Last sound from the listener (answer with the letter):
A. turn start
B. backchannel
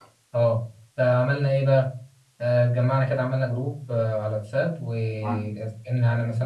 B